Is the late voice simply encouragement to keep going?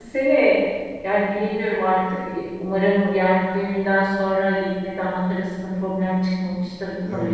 No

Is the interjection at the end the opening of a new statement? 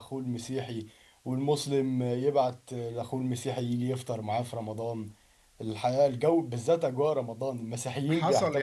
Yes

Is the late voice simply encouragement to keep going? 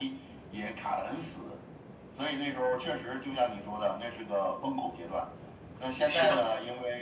Yes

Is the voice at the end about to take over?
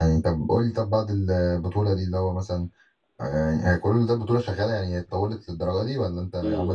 Yes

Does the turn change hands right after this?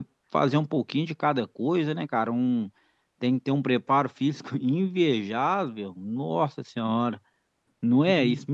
Yes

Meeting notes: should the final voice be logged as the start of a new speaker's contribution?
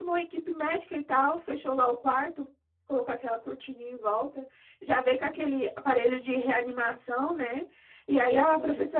No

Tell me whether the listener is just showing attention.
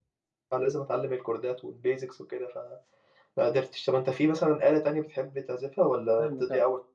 No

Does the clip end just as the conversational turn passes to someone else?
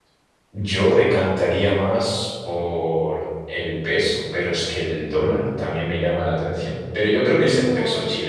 Yes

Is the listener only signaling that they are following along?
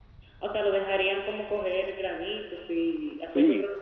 No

